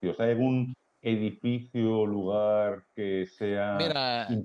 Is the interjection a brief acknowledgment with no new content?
No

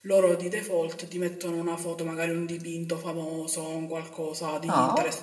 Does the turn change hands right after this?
Yes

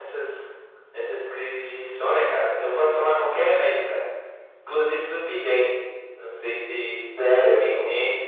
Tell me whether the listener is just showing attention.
No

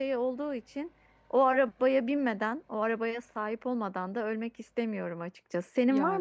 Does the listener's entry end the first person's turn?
No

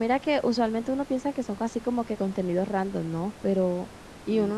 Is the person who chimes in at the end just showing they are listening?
Yes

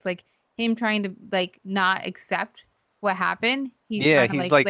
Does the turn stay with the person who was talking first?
No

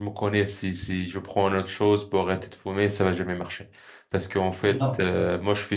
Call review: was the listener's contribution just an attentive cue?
Yes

